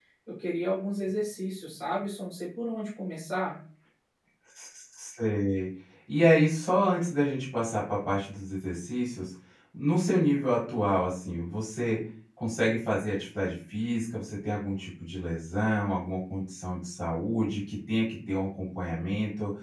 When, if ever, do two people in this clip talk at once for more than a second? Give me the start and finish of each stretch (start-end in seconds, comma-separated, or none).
none